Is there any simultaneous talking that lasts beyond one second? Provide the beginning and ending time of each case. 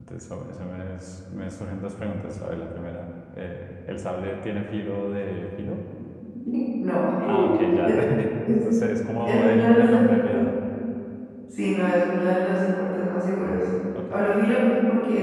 9.2-10.5

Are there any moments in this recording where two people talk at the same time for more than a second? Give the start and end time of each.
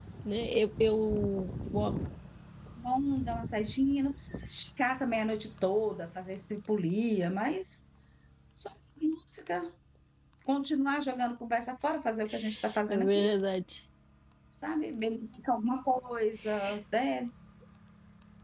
none

